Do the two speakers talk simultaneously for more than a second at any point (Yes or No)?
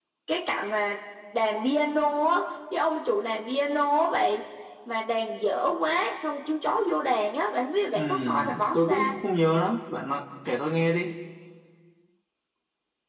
Yes